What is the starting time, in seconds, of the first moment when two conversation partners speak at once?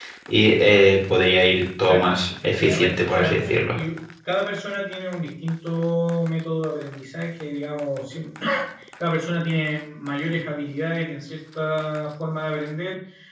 2 s

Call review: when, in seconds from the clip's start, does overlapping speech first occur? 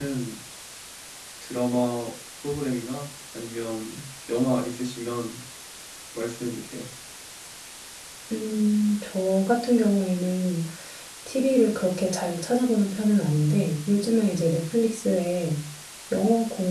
none

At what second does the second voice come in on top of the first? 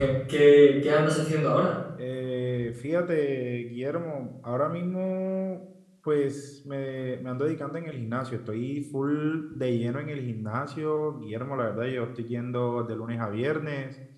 none

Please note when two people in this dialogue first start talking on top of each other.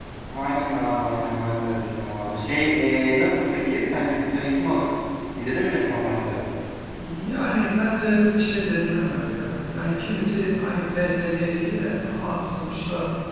none

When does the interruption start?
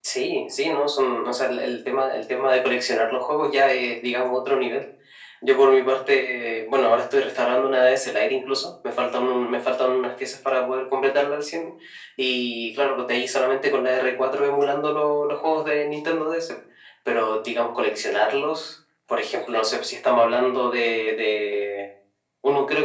none

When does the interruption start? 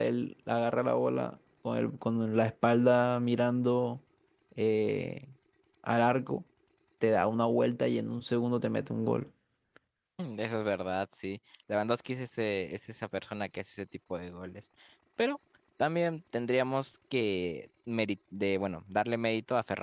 none

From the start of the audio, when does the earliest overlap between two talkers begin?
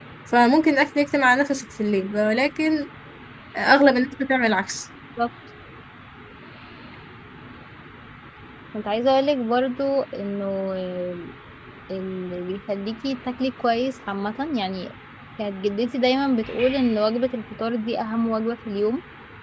none

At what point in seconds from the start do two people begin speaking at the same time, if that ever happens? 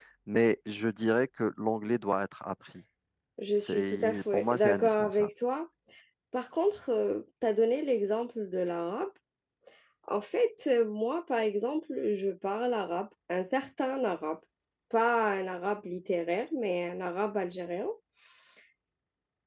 4 s

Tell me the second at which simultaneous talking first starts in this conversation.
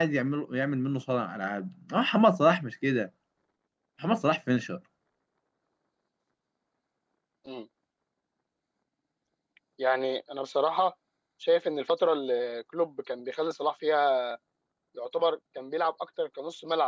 none

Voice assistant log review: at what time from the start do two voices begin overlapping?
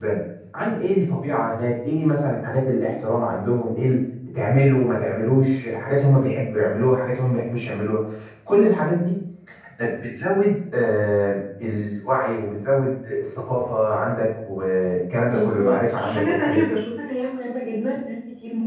15 s

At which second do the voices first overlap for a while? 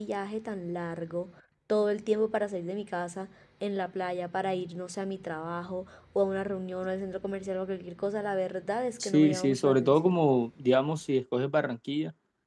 9 s

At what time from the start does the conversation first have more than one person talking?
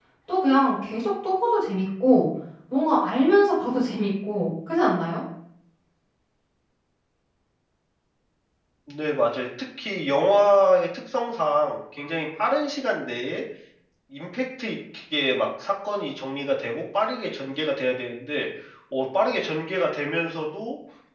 none

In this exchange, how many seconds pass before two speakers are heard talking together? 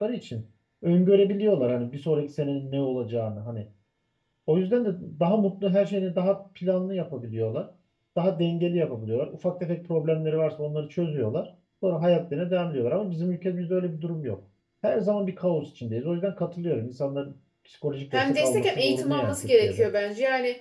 18 s

